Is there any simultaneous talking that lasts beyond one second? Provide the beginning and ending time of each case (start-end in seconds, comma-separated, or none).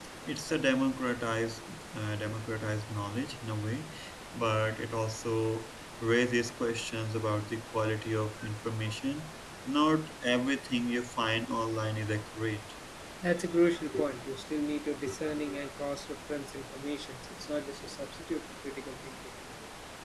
none